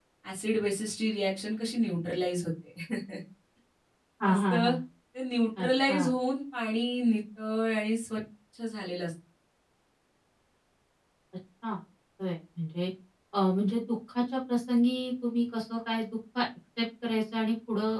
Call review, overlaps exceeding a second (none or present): none